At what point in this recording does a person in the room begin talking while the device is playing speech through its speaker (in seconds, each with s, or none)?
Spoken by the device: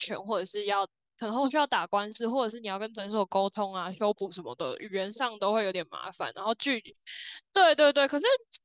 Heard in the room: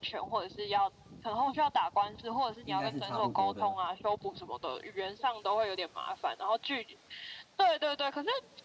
2.6 s